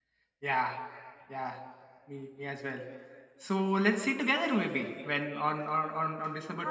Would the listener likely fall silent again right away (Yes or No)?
No